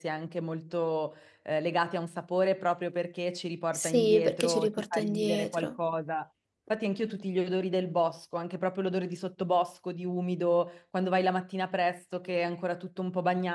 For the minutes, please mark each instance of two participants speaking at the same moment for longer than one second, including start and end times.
3.7-5.7

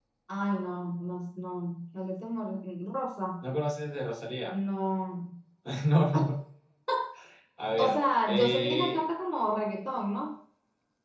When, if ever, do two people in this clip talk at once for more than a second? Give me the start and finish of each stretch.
7.8-9.0

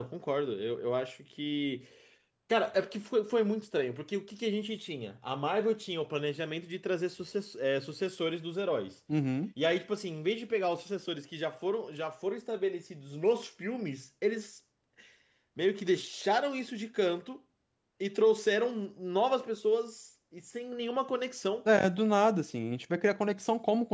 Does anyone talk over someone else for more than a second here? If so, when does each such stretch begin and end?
none

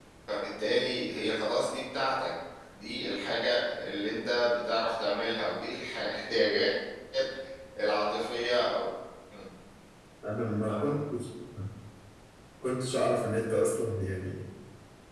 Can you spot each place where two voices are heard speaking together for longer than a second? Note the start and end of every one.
none

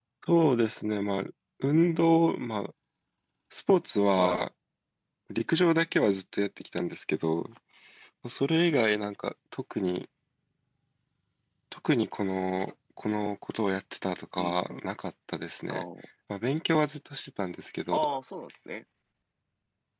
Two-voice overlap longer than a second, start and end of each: none

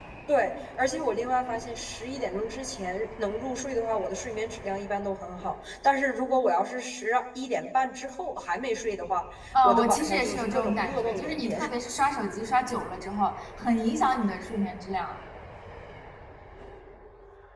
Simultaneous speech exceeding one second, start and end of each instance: 9.6-11.7

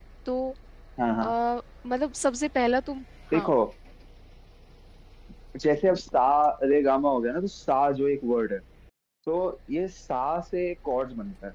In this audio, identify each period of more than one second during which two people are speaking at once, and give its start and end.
none

